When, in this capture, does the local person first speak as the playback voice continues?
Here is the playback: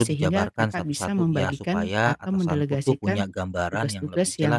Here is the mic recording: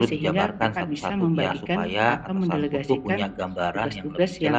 none

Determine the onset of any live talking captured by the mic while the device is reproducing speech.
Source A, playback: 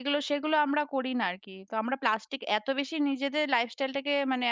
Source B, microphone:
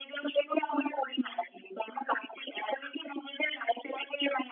none

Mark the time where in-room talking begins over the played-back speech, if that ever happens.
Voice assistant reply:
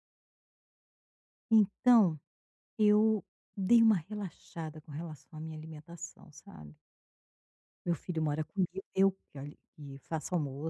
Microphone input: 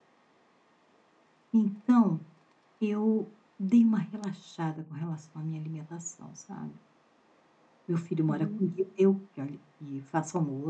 8.2 s

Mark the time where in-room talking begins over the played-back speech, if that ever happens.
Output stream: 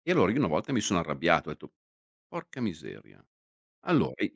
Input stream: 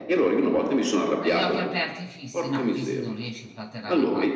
1.2 s

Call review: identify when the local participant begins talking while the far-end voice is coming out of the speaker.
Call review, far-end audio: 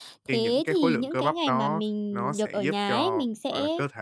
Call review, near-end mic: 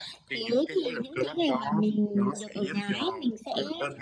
none

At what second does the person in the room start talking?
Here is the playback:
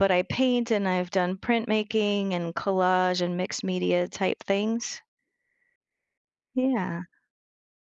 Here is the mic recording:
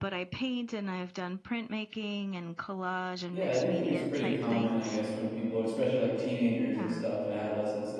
3.3 s

